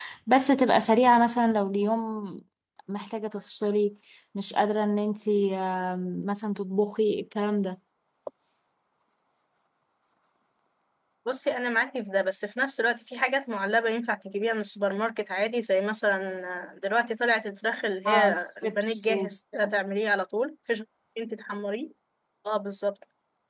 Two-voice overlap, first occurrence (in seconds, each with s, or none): 18.1 s